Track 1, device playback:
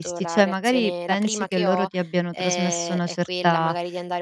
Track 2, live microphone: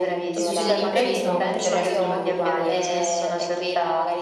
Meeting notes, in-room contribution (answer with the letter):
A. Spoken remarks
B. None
A